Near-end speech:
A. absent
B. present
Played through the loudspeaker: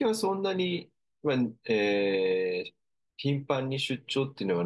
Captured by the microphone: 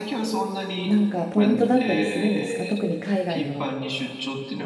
B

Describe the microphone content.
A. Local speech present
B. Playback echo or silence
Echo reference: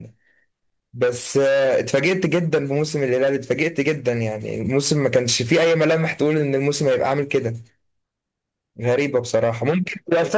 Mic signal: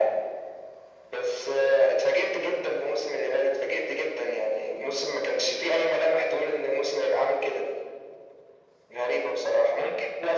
B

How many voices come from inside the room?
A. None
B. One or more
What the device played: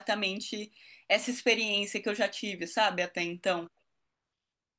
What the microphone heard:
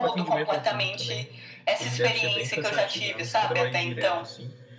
B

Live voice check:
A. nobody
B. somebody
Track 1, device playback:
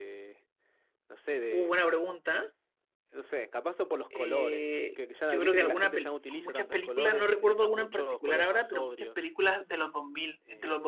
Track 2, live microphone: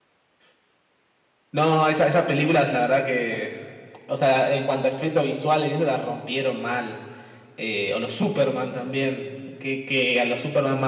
B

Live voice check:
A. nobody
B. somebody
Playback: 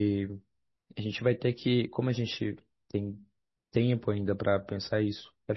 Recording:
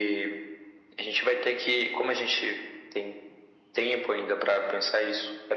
A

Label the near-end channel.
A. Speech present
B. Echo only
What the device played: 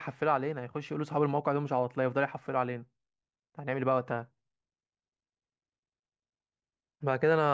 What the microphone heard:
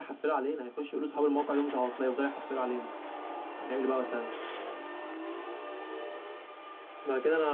B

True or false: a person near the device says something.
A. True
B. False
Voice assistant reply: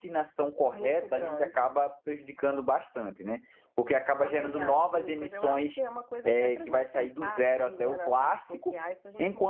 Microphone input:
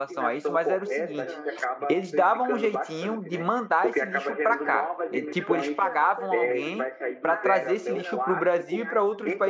A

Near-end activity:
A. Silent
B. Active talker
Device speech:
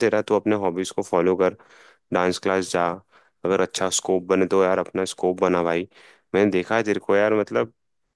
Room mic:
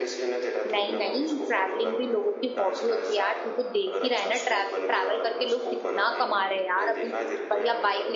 B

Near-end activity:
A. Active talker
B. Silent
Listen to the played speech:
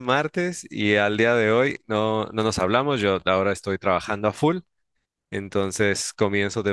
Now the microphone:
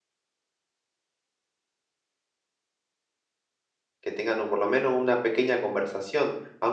A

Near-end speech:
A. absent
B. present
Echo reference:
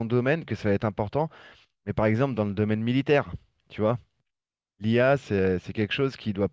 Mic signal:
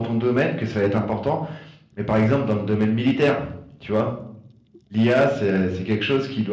A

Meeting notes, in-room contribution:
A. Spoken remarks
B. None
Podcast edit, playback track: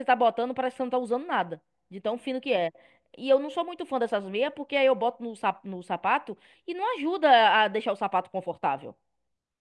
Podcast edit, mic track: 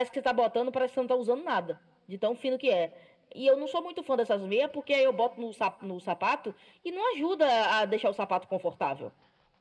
B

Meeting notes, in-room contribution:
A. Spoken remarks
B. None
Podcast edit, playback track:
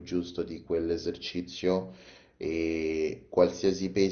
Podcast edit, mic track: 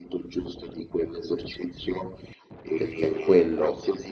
A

